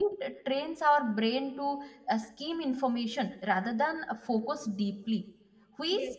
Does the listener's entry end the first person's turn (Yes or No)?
No